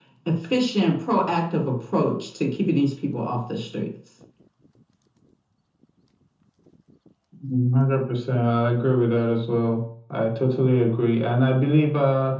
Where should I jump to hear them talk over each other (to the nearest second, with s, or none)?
none